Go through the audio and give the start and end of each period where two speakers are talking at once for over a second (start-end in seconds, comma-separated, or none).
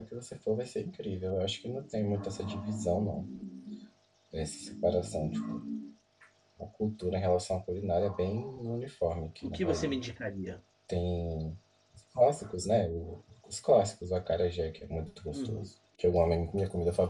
none